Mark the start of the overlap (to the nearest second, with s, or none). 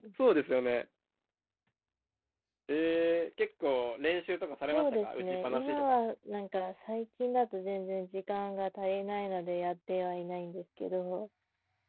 5 s